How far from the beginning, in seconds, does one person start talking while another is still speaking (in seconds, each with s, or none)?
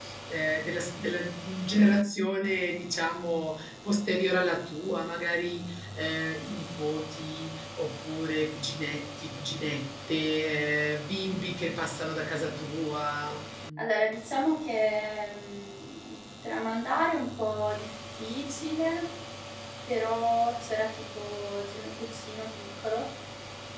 none